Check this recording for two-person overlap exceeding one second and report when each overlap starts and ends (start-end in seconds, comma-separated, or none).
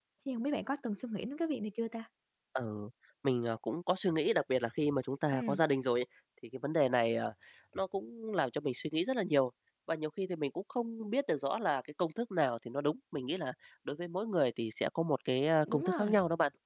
none